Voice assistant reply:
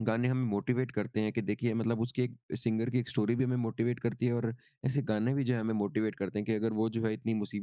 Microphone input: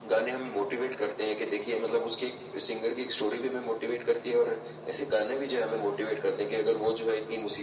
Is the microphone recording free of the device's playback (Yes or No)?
No